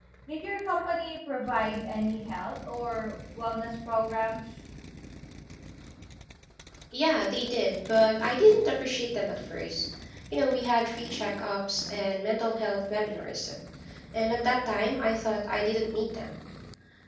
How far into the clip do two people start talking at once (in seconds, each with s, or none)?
none